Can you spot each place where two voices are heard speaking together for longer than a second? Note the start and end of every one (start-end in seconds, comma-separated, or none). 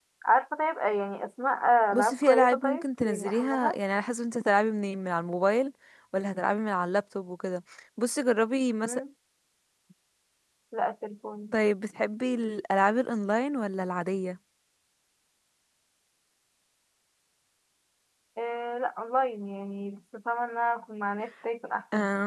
1.9-3.8